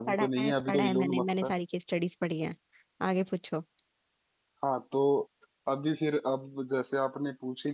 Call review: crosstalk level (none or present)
present